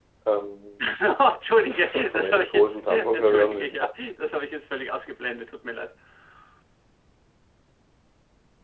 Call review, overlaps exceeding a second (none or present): present